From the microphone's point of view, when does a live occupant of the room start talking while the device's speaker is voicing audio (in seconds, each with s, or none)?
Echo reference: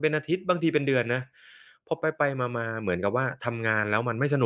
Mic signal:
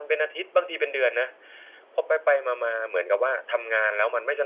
none